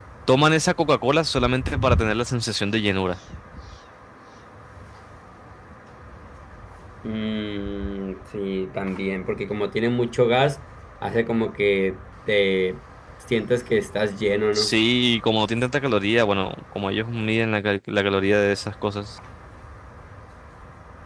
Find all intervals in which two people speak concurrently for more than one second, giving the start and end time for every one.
none

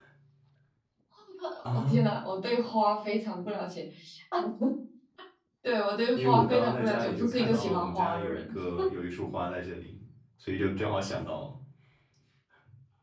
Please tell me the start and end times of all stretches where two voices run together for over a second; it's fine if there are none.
6.2-8.4

